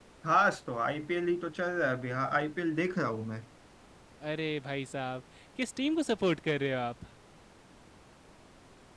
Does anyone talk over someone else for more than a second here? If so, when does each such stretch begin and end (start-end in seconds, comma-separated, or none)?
none